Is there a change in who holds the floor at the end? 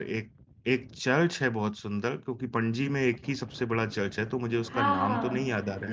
Yes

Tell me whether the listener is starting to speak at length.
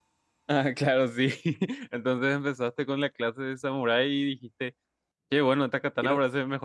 No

